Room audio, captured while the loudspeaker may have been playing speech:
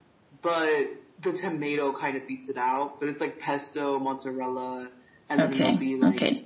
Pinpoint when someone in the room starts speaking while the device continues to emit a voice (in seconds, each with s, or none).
5.4 s